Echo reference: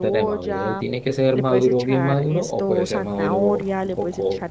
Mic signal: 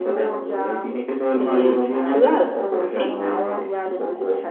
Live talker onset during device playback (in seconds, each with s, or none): 1.4 s